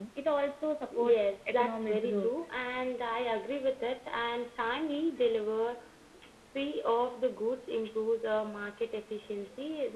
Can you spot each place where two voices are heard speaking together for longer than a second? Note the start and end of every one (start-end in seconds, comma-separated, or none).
0.9-2.3